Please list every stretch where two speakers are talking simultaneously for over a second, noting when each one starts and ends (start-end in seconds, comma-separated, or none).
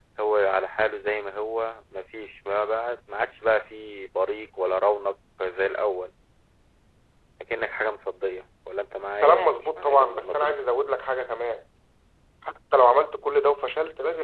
9.2-10.6